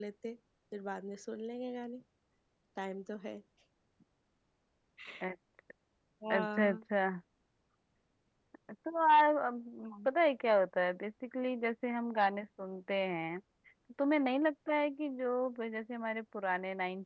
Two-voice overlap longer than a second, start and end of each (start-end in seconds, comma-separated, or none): none